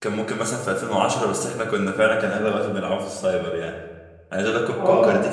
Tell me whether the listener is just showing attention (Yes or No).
Yes